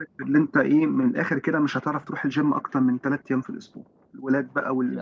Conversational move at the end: listening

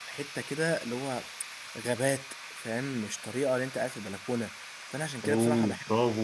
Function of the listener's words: listening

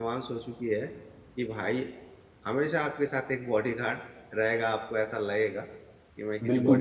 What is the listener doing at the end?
taking over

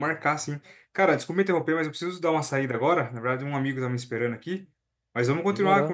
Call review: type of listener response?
listening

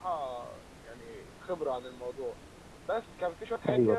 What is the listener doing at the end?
listening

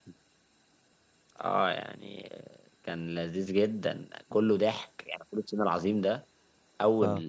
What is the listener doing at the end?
listening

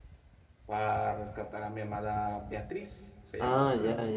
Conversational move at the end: taking over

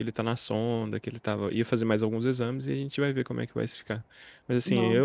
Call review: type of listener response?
listening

